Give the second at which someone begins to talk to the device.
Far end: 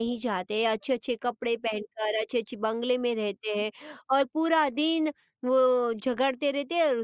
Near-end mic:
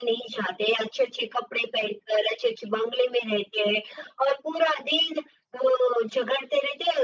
none

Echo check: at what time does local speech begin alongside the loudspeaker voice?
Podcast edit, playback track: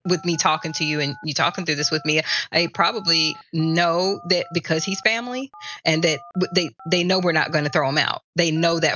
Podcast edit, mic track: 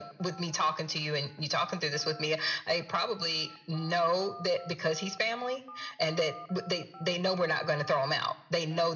none

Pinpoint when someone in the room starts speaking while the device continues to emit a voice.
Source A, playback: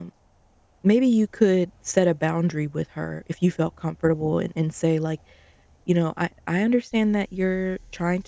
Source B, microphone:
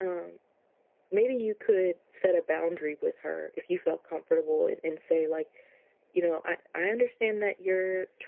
none

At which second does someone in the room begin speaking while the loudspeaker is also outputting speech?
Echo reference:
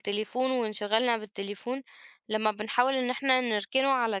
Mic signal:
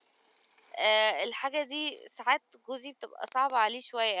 0.8 s

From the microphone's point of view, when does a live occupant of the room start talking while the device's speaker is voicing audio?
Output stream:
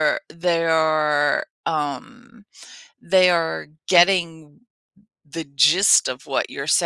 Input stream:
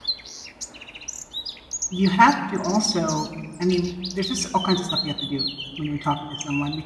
1.9 s

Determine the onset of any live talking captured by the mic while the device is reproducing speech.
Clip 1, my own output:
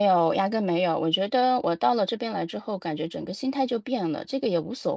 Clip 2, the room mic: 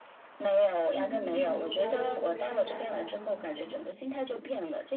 0.9 s

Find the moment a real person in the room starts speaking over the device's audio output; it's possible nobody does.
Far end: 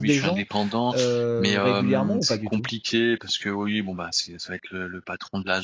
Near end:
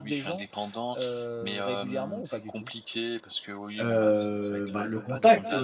3.8 s

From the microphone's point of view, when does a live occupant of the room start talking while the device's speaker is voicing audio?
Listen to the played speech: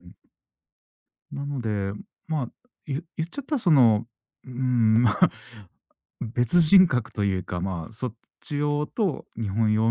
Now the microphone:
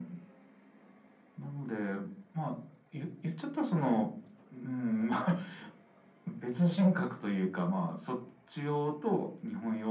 none

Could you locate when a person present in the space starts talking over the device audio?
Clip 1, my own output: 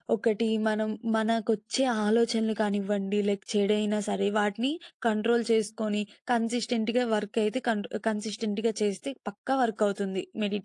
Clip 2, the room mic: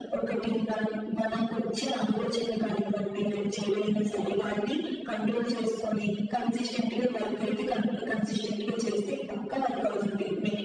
none

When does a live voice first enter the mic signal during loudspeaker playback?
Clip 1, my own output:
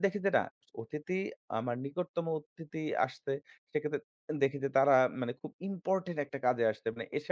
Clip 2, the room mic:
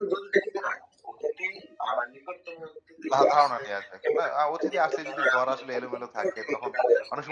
3.1 s

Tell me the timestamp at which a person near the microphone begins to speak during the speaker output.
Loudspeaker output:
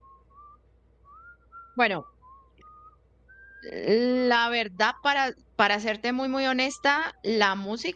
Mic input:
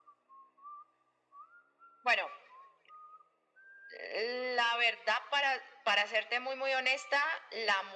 none

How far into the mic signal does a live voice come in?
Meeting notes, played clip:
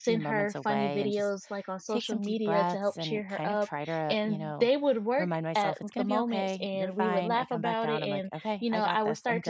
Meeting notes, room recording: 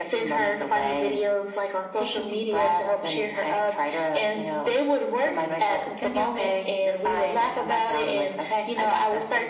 none

